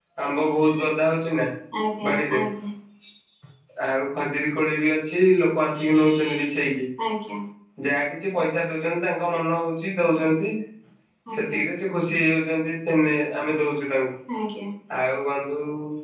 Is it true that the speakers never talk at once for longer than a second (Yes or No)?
Yes